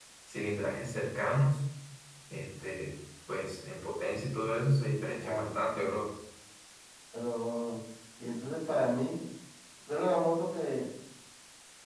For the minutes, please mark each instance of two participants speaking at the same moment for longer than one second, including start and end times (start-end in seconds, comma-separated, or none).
none